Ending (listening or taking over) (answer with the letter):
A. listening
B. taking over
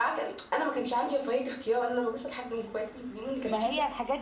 B